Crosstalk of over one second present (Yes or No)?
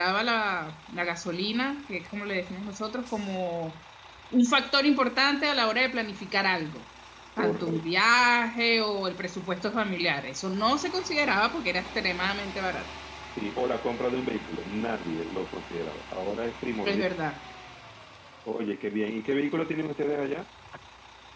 No